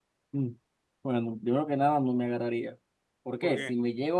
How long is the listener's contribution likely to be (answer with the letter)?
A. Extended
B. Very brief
B